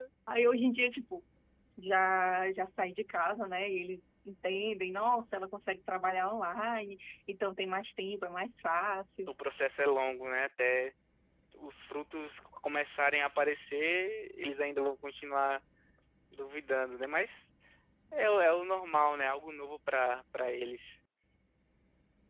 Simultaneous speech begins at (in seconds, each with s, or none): none